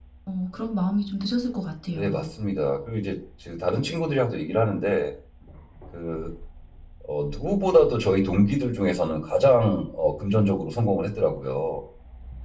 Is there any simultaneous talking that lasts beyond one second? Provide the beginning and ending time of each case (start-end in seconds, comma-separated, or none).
none